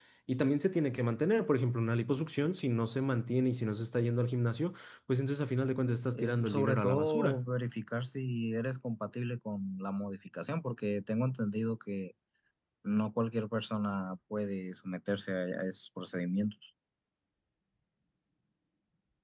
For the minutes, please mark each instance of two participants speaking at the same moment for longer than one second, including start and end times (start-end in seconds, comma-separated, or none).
6.1-7.4